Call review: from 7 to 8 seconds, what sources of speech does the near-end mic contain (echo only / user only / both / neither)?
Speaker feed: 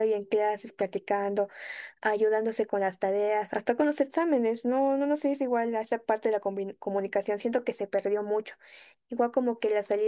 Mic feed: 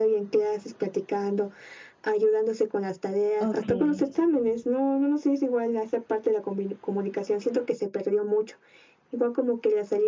echo only